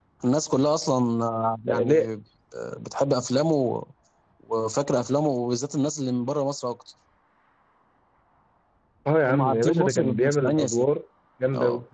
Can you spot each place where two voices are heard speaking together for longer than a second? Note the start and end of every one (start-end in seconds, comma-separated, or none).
9.3-10.8